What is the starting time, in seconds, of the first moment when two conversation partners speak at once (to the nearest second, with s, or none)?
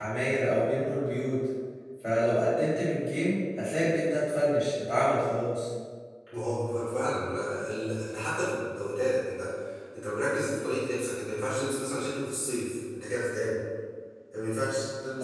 none